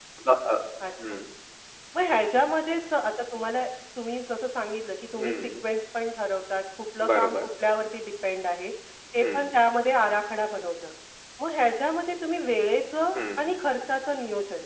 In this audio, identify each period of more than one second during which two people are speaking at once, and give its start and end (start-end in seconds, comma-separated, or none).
none